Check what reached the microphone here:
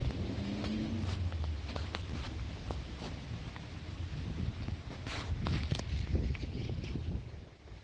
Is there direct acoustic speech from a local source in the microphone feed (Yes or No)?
No